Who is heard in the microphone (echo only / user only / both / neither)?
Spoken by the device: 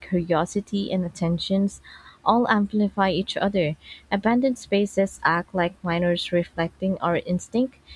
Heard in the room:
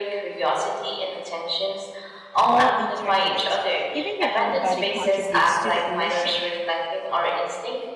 both